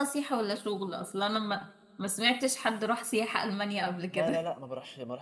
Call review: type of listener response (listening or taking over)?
taking over